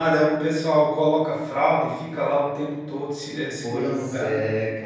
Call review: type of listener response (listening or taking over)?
taking over